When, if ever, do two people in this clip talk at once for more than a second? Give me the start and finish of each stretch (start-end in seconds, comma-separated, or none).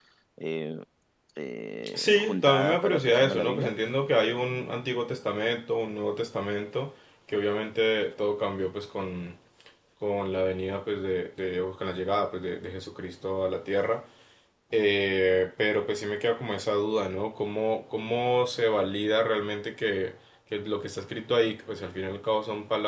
1.9-3.7